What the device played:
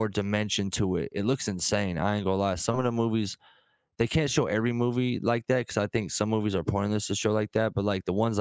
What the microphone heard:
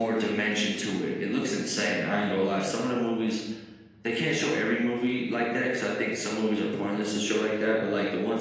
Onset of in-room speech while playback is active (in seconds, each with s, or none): none